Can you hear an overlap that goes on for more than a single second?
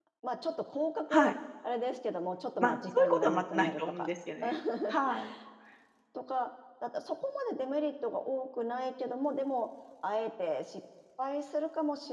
Yes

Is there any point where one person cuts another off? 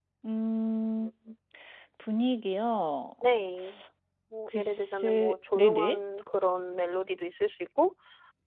Yes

